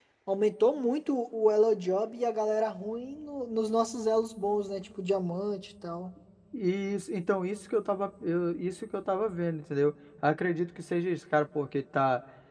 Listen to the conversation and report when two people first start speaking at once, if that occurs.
none

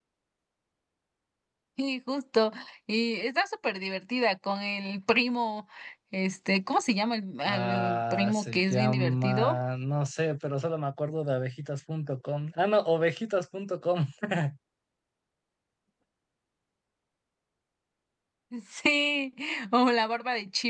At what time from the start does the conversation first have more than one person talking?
7.5 s

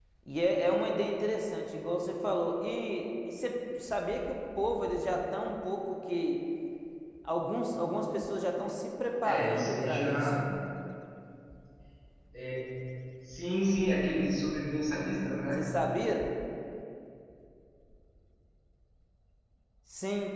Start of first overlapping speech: 9.2 s

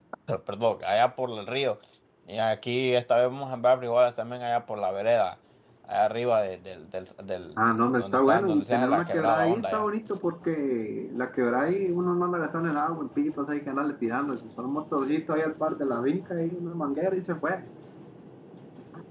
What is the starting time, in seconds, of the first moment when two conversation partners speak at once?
7.6 s

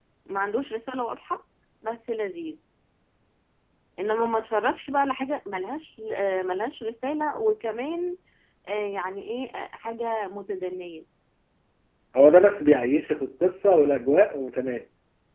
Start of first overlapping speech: none

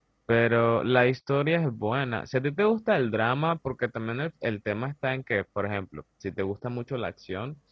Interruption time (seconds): none

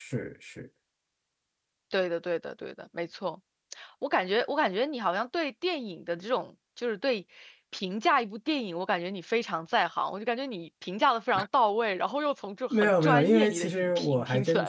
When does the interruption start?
12.7 s

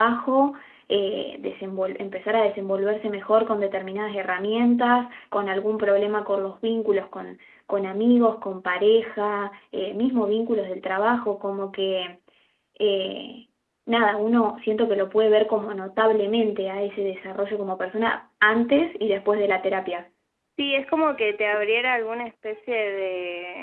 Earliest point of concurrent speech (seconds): none

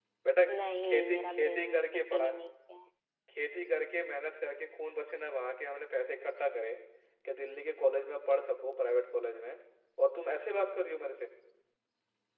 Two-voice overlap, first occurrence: 0.8 s

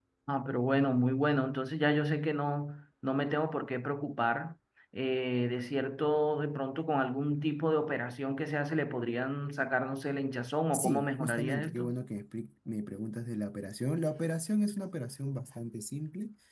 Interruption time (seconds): 10.7 s

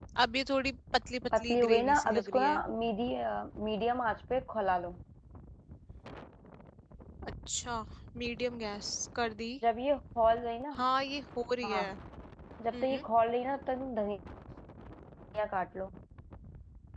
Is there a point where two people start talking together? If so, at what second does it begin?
1.4 s

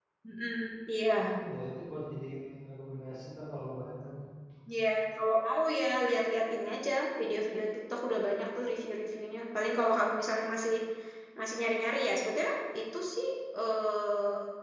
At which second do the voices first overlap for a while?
none

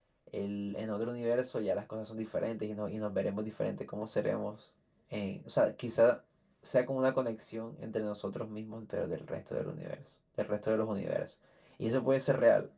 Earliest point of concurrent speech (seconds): none

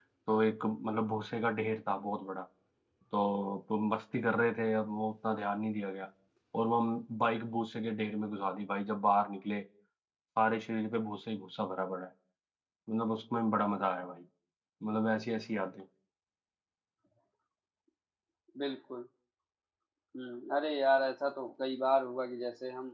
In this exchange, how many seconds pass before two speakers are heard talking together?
none

